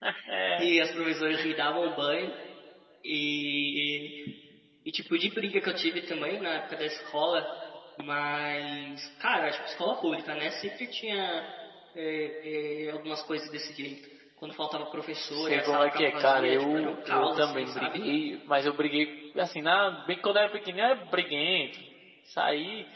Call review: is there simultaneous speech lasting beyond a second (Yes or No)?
Yes